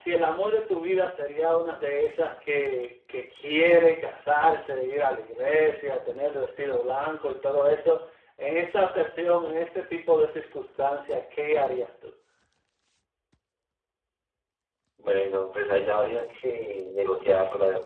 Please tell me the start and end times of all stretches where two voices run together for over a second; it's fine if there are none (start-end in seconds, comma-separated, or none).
none